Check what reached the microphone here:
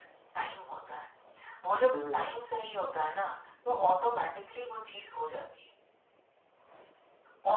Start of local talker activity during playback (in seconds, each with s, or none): 1.9 s